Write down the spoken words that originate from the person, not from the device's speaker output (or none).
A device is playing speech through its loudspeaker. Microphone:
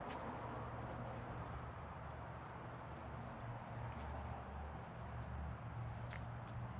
none